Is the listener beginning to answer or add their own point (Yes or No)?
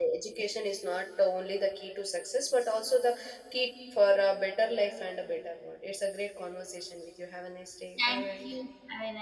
Yes